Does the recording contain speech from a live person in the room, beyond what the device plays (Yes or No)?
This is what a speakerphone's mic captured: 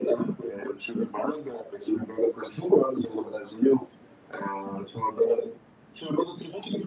No